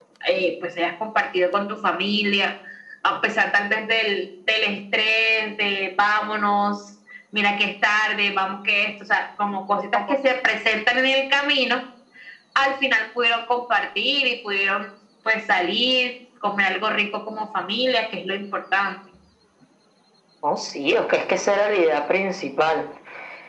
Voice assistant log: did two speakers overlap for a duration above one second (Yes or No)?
No